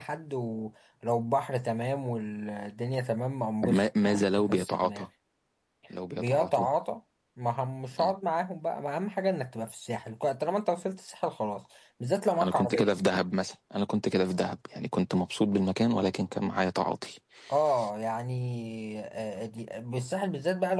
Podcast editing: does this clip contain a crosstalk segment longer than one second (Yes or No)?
Yes